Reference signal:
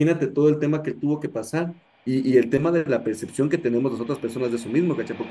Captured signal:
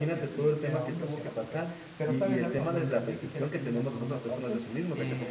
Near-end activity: present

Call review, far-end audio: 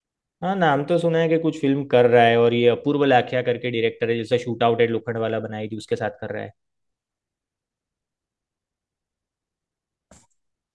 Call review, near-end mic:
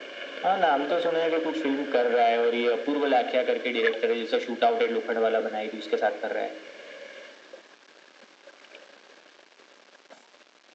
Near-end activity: none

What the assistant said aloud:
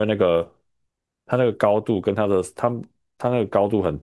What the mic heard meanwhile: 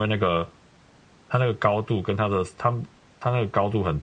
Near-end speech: none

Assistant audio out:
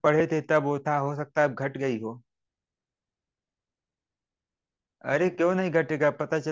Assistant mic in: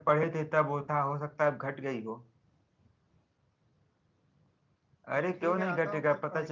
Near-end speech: present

